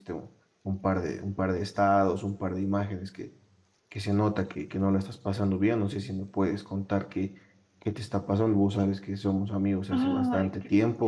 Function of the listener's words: listening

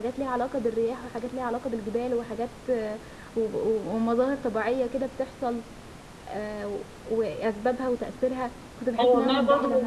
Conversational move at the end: taking over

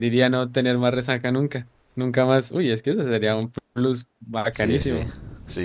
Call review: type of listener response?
taking over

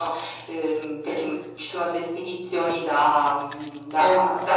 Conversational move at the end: listening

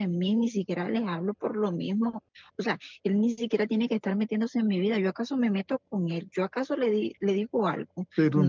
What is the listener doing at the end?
taking over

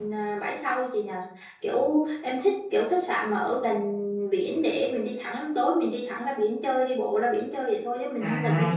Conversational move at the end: taking over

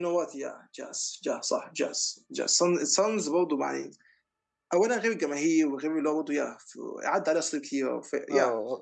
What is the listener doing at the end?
taking over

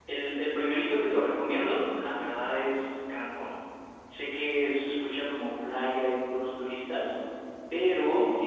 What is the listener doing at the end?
listening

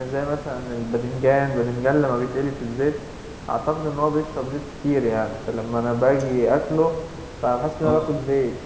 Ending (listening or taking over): listening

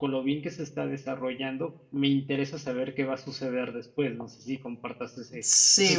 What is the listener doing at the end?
taking over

